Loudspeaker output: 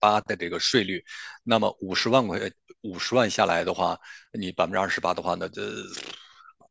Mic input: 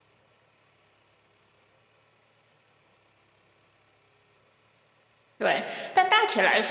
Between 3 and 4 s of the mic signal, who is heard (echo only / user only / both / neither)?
neither